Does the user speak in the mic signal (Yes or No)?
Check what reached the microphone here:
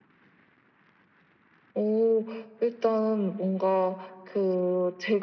No